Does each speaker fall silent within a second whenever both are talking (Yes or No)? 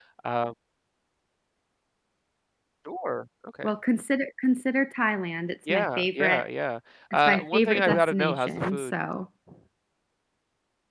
No